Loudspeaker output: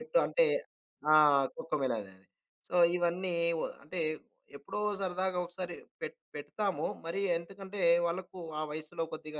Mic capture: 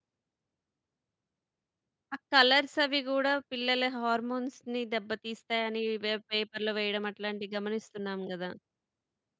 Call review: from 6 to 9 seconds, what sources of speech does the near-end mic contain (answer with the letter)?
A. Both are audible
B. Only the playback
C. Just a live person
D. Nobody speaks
C